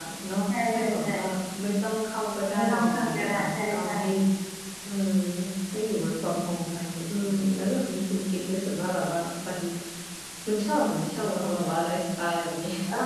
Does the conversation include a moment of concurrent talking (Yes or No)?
Yes